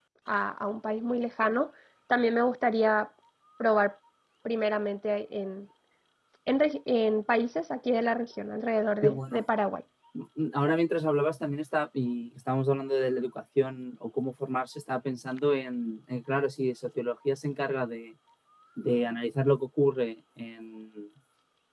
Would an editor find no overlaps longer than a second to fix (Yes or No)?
Yes